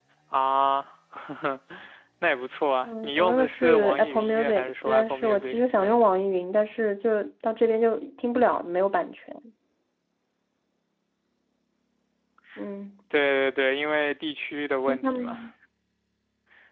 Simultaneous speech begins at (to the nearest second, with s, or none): 3 s